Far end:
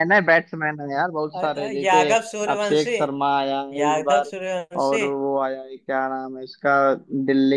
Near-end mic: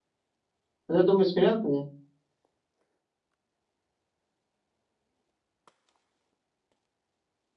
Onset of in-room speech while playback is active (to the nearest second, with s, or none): 1 s